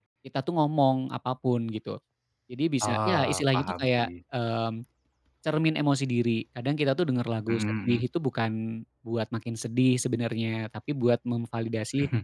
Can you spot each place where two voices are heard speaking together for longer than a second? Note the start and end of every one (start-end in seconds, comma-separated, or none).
2.8-4.1